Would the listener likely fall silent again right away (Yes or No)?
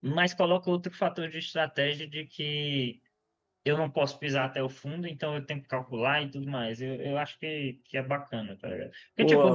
Yes